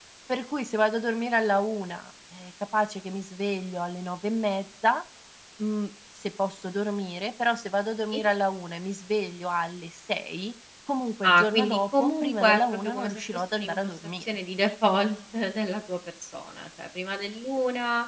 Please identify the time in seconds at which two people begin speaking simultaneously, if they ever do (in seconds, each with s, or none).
11.2 s